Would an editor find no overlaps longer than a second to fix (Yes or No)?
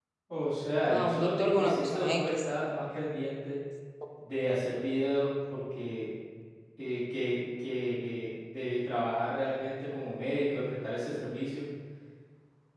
No